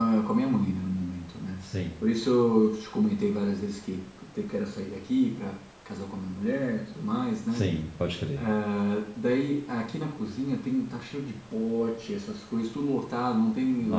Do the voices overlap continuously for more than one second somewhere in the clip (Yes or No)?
No